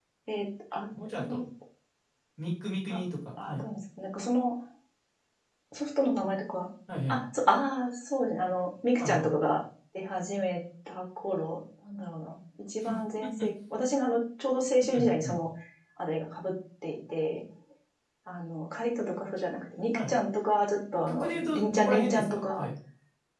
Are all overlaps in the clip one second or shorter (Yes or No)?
No